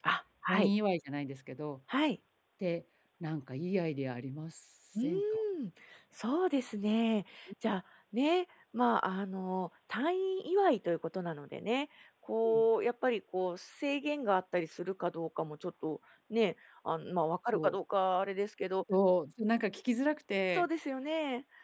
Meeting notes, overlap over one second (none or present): none